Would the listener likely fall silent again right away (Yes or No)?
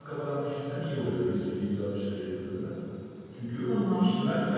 Yes